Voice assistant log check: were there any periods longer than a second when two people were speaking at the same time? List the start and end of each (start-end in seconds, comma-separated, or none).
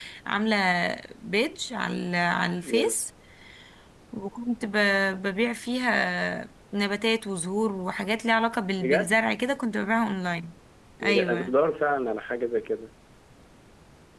none